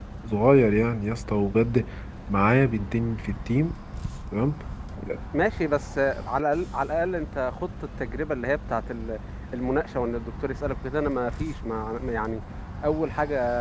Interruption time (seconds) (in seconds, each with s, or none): none